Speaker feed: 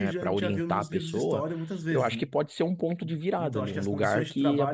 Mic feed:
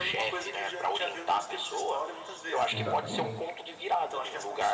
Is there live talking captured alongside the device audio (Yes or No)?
Yes